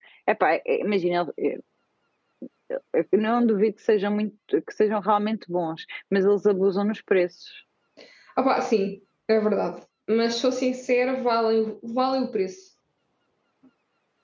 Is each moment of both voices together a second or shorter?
Yes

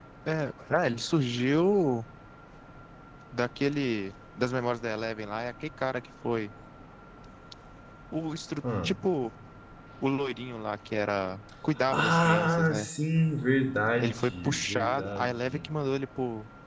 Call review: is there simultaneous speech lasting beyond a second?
Yes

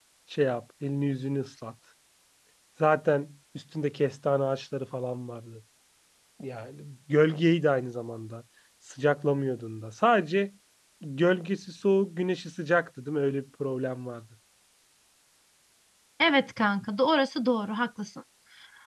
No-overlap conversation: Yes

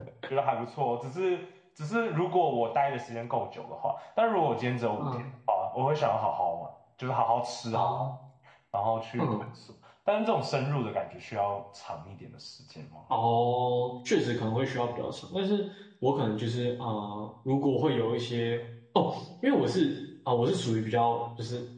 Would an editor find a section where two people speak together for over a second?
No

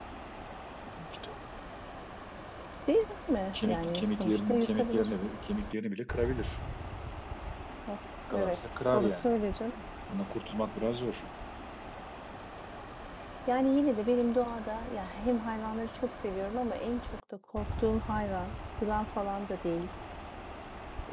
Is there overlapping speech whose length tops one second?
Yes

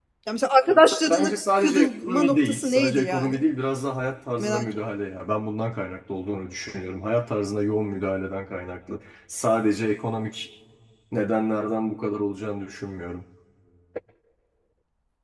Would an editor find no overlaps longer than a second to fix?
No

